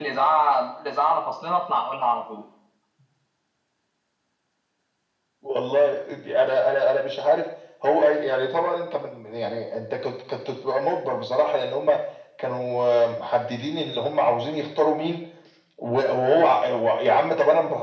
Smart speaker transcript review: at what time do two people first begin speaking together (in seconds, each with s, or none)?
none